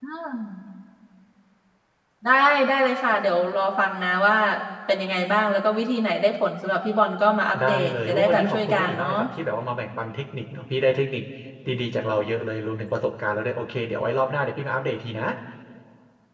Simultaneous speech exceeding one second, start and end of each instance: 7.6-9.1

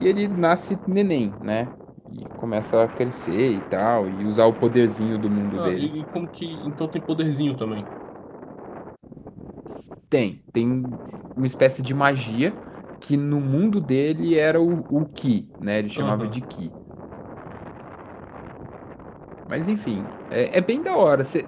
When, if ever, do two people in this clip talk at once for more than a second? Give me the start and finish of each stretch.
none

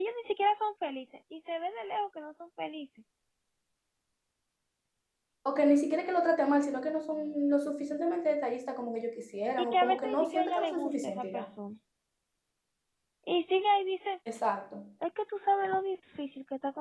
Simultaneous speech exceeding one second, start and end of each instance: 9.7-11.4

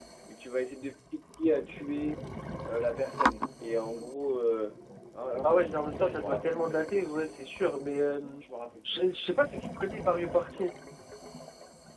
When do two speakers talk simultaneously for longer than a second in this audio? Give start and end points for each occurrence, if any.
5.4-7.3

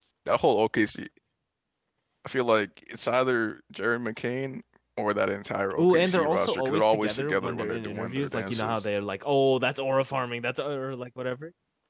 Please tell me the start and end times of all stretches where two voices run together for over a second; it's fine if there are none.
5.8-8.9

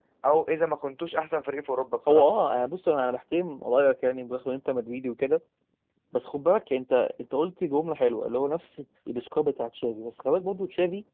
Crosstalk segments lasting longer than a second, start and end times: none

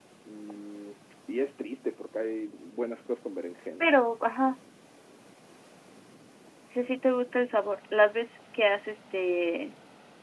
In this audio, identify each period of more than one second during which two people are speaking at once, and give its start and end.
none

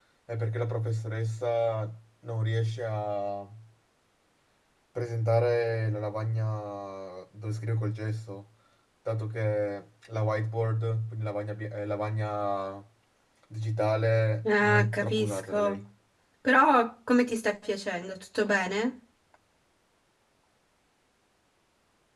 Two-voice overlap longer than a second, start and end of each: 14.5-15.8

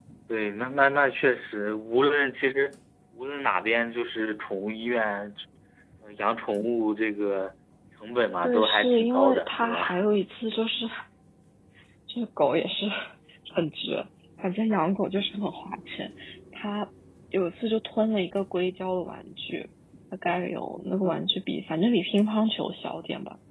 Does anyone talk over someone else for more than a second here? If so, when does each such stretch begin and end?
8.4-10.0

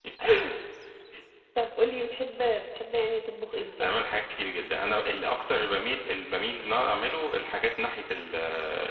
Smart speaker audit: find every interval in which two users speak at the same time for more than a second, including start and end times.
none

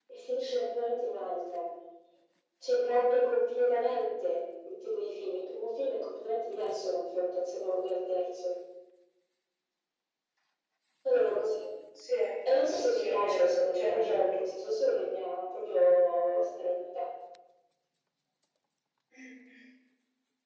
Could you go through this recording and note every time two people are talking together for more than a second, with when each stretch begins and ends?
12.7-14.7

